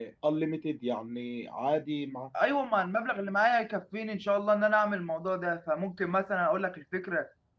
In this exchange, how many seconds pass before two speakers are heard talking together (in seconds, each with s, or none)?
none